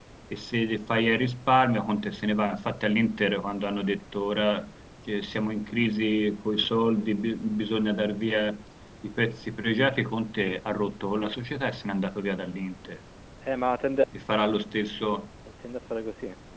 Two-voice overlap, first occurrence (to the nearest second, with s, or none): none